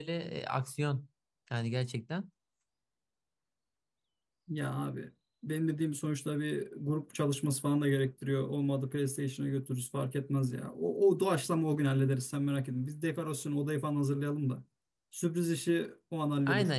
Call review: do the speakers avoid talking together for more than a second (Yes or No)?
Yes